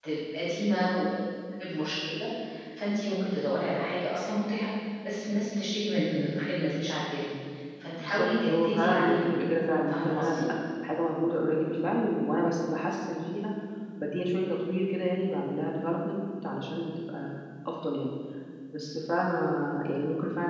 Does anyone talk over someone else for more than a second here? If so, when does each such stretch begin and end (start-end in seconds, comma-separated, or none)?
8.0-9.3